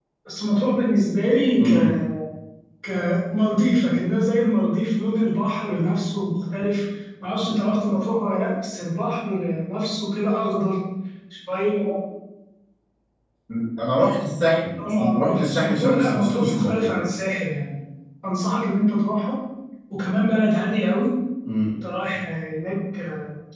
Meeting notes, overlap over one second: present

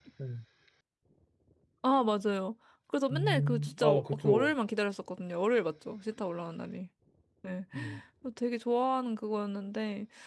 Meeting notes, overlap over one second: present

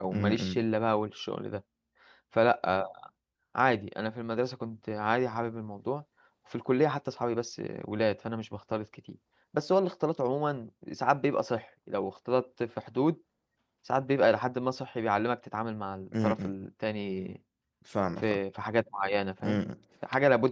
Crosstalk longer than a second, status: none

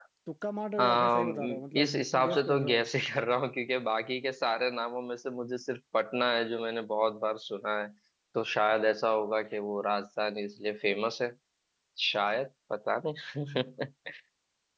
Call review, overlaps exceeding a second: present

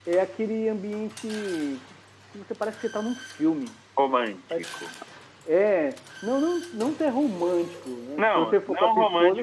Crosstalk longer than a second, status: present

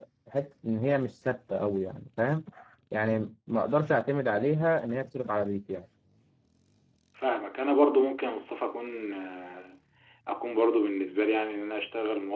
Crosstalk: none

